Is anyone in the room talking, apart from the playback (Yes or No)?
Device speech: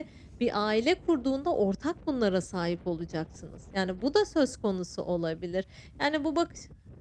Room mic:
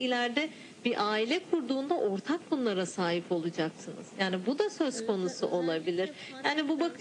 Yes